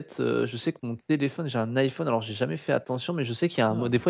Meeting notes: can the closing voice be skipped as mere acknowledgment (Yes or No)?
Yes